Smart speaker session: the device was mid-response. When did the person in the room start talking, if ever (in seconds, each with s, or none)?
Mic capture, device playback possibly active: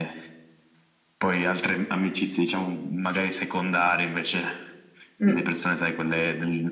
5.2 s